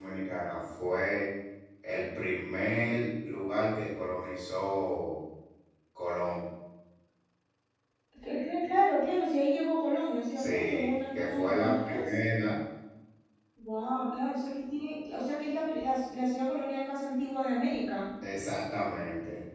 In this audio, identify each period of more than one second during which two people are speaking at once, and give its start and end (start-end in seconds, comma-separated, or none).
10.4-12.1